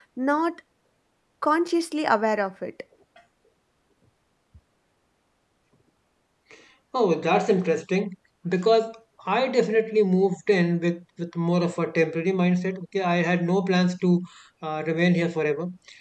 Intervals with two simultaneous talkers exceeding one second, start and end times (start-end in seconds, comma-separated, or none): none